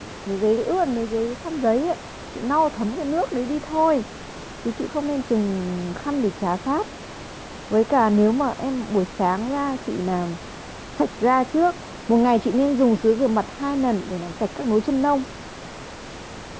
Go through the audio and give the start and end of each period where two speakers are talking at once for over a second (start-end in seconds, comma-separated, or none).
none